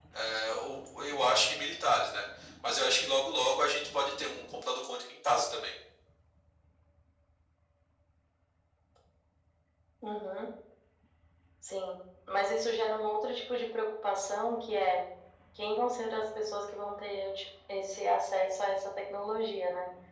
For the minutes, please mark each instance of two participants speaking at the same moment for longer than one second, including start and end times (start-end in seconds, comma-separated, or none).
none